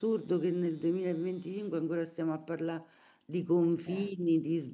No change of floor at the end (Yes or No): Yes